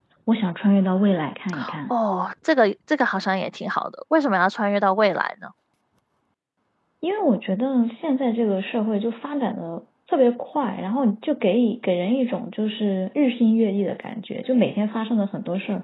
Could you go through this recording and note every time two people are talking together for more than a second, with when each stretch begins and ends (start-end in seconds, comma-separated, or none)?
none